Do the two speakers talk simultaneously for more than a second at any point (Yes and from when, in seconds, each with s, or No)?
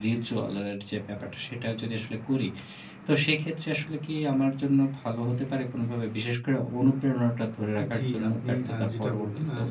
Yes, from 7.8 s